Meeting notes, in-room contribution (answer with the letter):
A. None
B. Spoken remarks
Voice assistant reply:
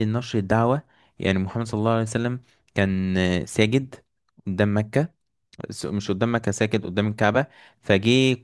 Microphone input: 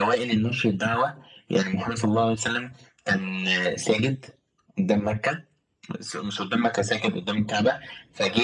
A